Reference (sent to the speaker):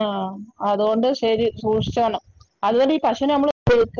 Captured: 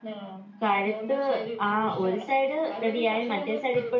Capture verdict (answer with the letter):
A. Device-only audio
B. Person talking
B